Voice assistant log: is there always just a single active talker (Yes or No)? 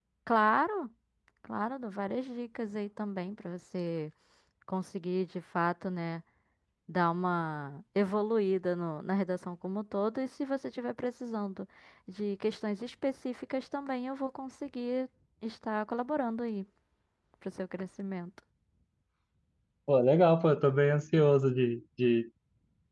Yes